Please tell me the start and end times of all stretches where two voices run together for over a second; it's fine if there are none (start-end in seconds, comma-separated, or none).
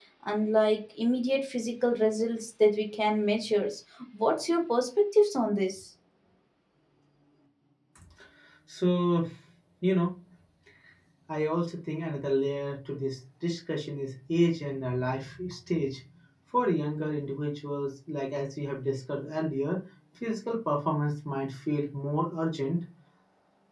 none